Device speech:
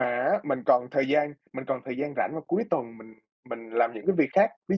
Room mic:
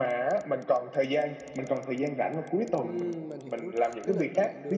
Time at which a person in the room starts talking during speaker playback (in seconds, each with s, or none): 2.8 s